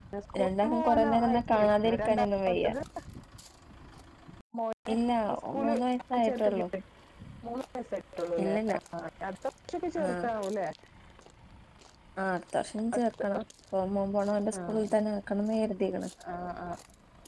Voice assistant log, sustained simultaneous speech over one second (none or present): present